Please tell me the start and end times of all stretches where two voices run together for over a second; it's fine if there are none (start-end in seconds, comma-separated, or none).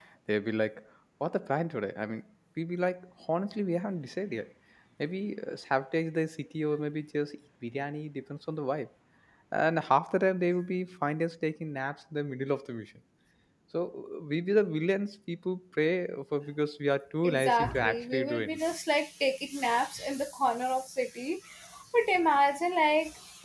17.2-18.6